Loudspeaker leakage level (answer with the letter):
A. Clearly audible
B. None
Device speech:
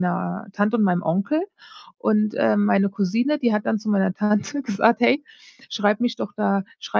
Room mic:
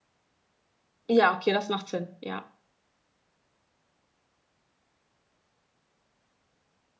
B